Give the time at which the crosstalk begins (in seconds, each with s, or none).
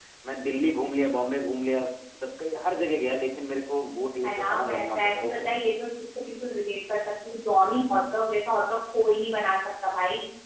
4.2 s